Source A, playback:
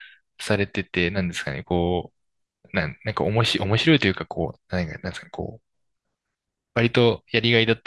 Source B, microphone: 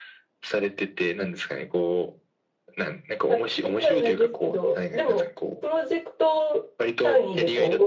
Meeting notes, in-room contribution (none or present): present